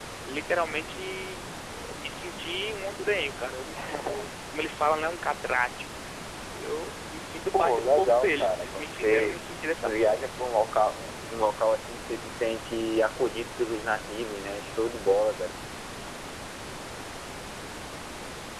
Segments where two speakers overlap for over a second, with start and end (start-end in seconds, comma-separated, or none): 7.5-9.4